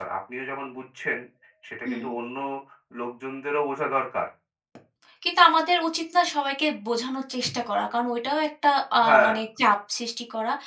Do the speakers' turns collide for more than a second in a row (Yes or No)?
No